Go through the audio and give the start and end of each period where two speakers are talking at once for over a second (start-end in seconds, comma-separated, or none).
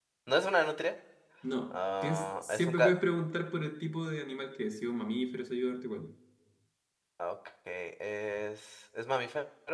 1.7-2.9